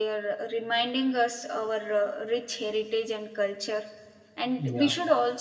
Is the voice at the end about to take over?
No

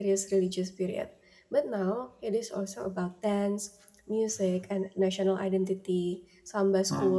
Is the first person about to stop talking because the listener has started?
No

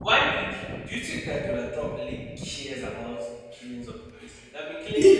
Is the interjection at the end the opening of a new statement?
Yes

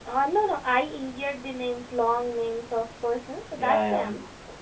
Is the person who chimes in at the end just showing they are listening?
No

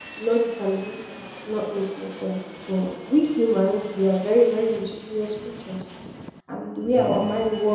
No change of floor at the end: Yes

